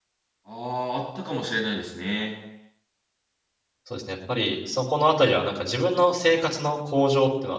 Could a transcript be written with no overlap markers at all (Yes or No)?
Yes